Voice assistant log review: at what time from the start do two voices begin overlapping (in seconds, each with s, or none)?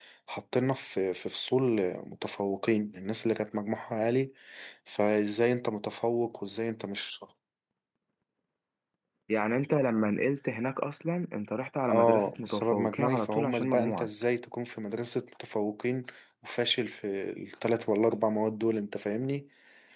11.9 s